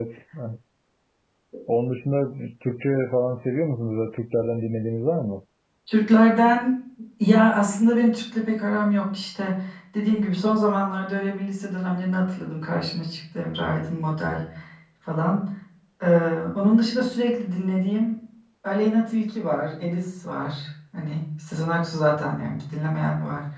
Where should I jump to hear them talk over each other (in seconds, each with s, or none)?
none